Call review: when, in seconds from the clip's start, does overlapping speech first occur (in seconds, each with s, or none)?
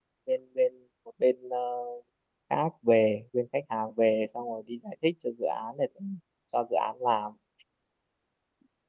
none